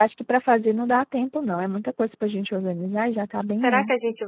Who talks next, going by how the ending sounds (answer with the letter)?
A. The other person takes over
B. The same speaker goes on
A